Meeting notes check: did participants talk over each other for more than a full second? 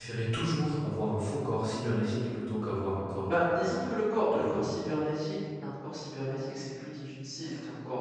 No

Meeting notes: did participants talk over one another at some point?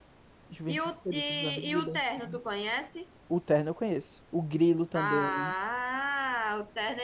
Yes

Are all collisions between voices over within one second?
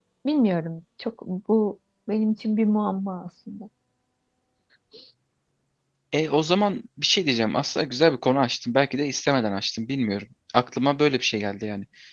Yes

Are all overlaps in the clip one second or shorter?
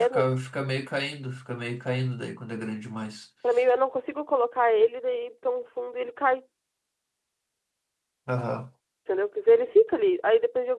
Yes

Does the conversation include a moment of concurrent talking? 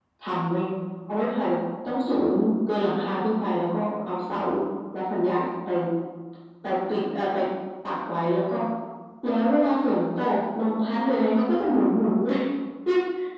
No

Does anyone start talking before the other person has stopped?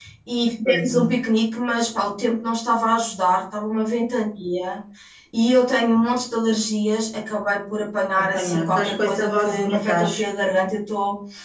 Yes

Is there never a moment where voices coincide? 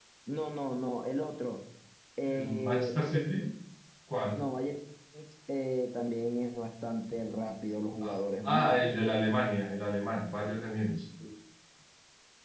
No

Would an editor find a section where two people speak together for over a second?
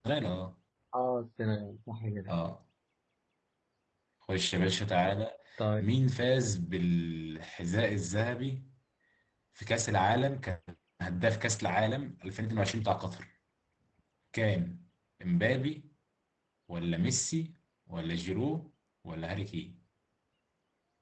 No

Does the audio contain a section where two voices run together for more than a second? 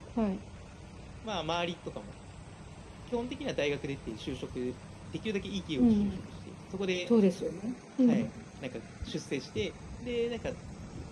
No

